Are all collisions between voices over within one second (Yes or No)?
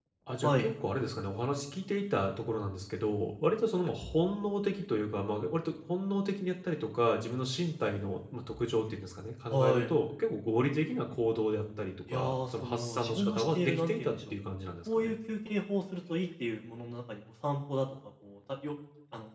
No